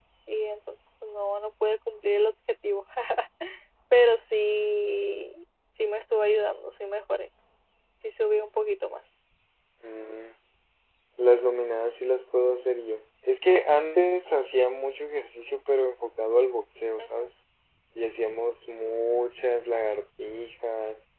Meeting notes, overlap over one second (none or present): none